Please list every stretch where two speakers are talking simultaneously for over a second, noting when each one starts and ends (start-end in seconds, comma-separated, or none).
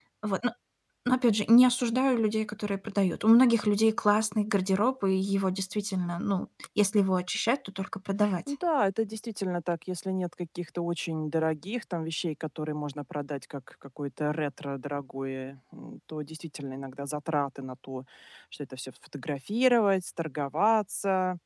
none